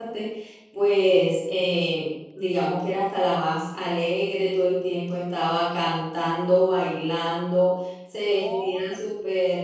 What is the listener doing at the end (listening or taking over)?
listening